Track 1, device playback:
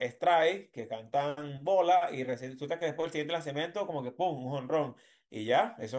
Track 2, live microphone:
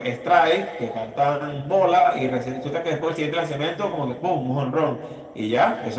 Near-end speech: none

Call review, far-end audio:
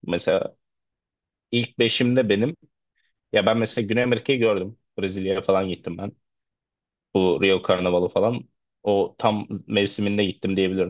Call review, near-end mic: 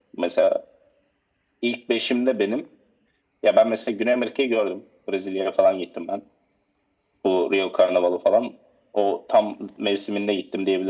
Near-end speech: none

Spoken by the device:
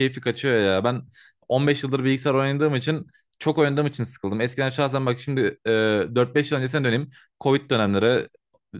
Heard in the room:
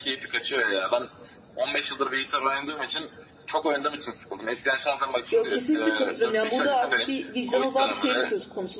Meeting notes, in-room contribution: present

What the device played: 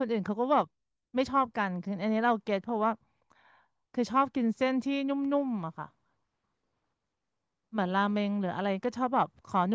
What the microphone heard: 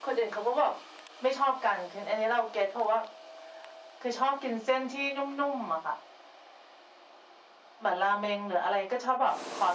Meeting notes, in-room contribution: none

